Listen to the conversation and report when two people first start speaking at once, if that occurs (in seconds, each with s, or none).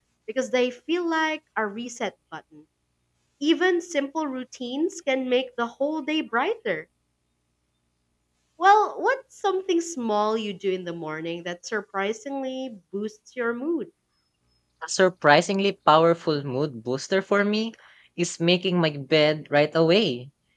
none